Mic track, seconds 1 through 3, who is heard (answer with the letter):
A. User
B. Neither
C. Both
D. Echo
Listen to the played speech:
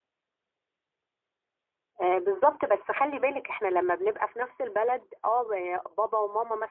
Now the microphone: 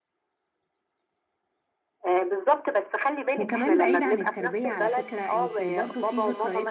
D